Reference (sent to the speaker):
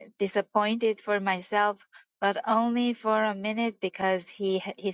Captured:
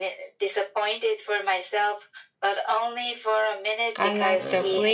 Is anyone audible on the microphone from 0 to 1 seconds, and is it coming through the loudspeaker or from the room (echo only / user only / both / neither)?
echo only